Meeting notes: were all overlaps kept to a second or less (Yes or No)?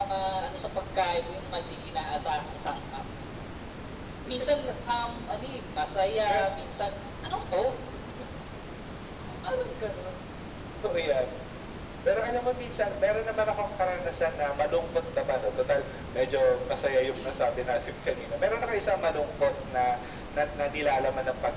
Yes